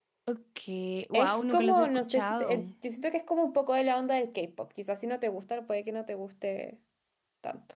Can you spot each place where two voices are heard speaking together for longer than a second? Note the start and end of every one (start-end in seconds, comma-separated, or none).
1.1-2.6